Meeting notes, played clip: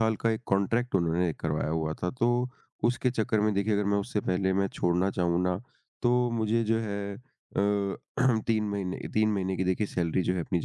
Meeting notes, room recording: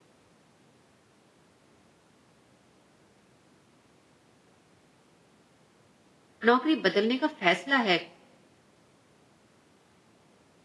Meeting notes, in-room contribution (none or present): present